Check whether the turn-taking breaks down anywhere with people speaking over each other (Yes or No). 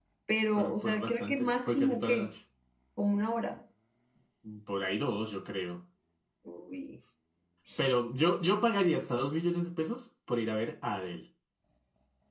Yes